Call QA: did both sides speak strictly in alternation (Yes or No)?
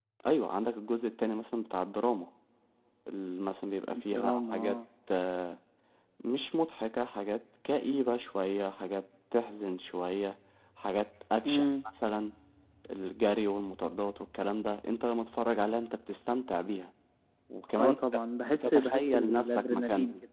No